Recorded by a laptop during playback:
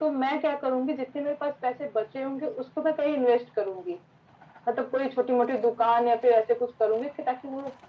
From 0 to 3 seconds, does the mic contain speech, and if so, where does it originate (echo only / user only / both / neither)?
echo only